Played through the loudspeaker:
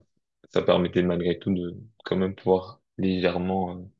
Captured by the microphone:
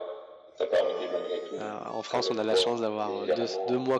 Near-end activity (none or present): present